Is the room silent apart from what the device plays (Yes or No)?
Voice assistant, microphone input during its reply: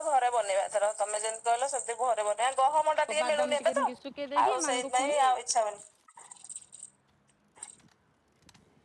No